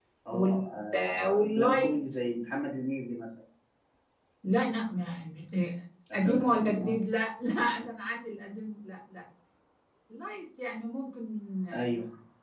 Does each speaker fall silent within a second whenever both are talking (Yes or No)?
No